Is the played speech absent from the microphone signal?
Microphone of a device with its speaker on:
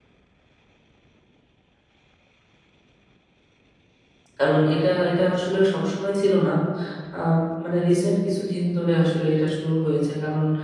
Yes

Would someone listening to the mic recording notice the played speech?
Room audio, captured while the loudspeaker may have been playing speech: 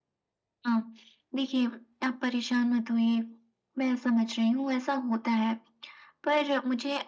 Yes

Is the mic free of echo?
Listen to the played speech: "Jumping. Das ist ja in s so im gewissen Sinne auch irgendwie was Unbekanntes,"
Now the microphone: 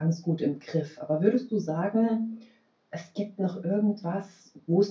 Yes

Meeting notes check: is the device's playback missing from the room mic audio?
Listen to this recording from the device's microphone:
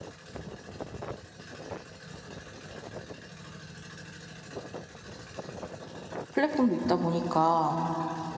Yes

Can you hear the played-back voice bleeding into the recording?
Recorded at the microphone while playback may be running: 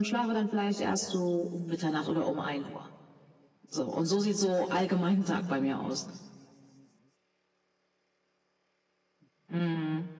Yes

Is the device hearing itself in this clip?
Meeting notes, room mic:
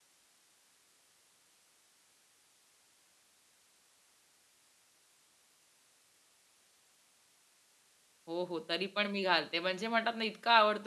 No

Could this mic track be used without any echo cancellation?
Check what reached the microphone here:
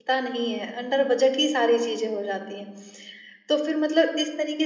Yes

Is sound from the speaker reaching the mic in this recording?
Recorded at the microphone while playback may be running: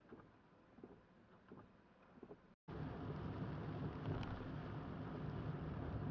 No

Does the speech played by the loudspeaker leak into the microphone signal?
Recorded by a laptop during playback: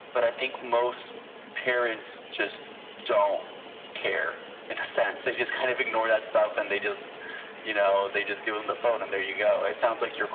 Yes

